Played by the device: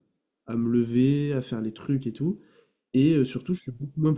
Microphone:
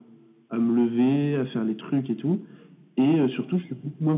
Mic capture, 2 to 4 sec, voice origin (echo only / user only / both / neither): echo only